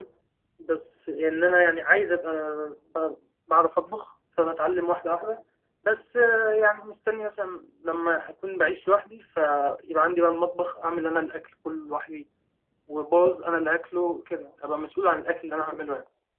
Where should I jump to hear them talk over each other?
none

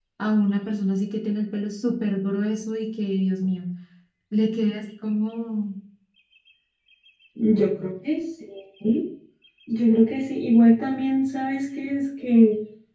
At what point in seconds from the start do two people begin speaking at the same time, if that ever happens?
none

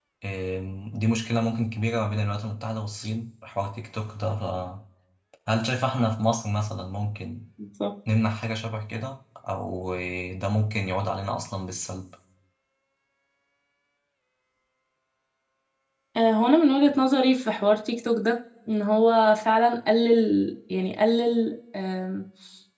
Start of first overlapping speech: none

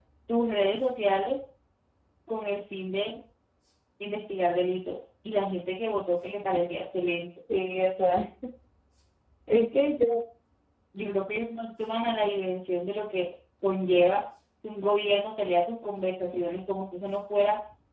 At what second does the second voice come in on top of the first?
none

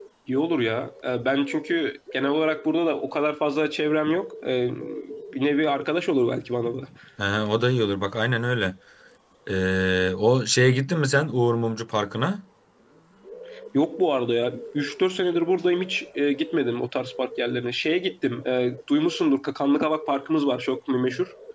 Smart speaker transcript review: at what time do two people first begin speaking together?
none

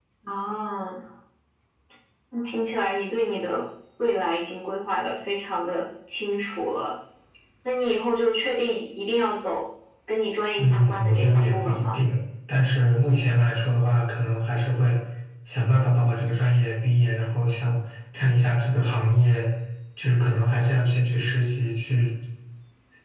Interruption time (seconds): 11 s

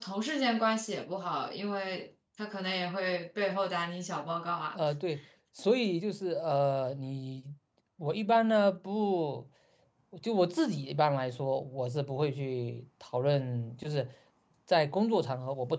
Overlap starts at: none

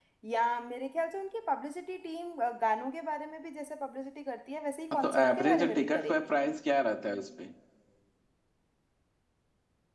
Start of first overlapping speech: 5 s

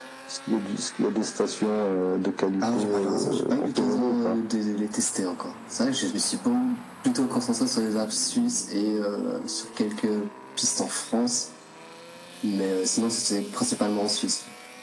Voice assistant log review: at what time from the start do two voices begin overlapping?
3 s

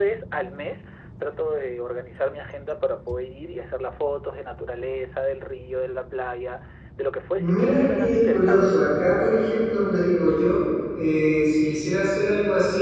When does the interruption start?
7 s

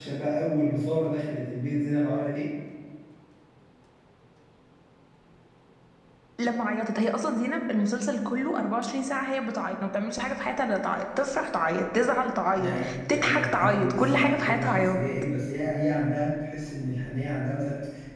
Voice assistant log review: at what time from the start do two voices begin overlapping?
13 s

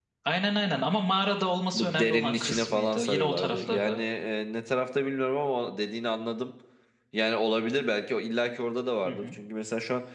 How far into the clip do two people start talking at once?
2 s

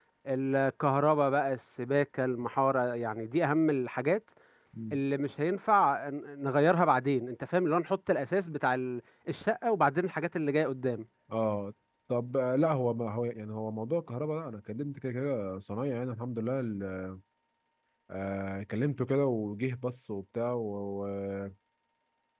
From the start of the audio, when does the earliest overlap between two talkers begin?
none

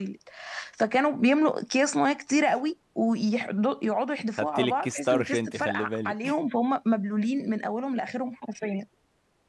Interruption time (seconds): 4 s

